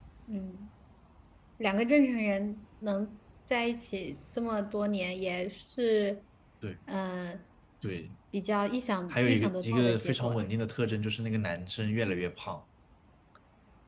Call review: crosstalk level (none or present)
present